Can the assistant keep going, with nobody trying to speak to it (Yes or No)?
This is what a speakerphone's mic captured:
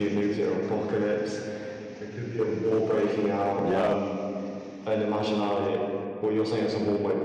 No